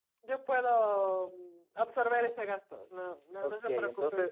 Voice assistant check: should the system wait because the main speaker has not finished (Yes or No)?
No